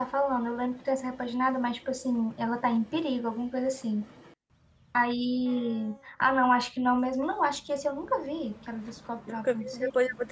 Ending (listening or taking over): taking over